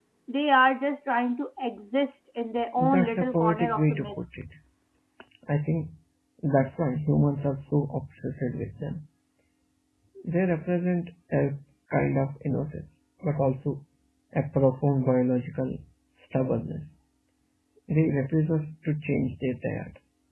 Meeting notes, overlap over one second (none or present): present